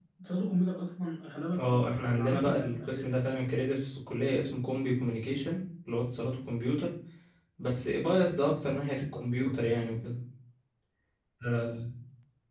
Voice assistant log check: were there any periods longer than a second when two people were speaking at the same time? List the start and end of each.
1.6-3.9

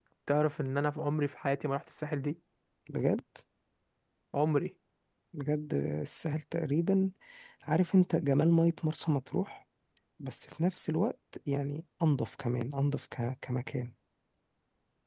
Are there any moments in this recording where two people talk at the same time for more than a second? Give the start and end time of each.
none

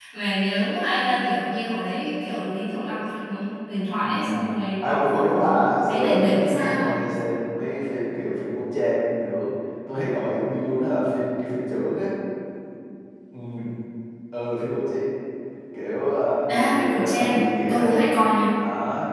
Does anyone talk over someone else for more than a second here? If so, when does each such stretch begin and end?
4.8-6.9, 16.5-18.0

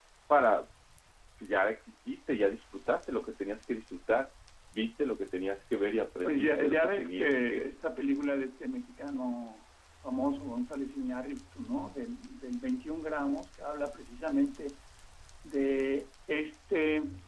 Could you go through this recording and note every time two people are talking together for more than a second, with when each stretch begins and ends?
6.2-7.6

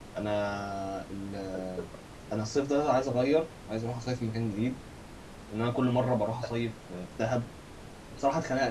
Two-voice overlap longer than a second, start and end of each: none

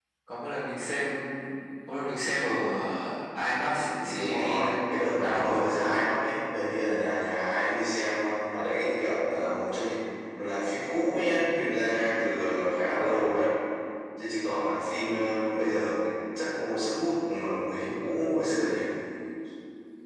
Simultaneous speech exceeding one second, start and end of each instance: 3.6-5.6

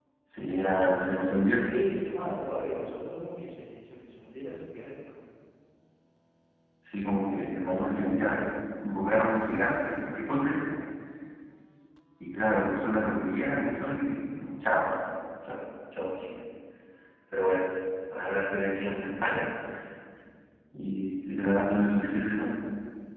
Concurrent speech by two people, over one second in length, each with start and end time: none

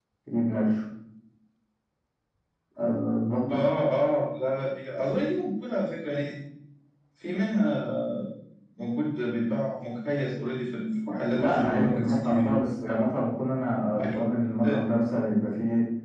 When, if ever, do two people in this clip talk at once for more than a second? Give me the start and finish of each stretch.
11.3-12.6

